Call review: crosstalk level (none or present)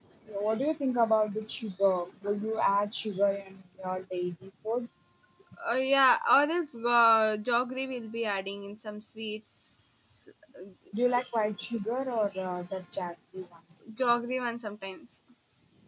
none